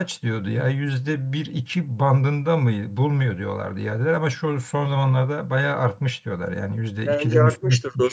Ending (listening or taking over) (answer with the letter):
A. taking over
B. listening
A